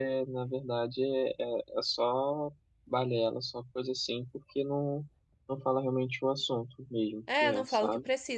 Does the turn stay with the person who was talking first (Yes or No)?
No